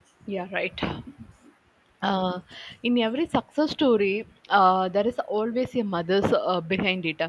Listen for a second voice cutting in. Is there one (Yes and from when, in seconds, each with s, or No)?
No